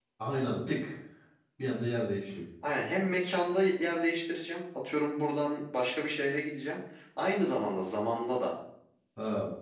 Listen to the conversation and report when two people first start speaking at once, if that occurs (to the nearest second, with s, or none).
none